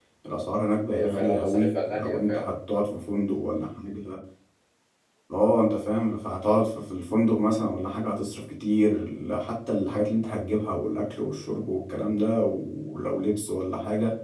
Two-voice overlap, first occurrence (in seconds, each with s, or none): 0.9 s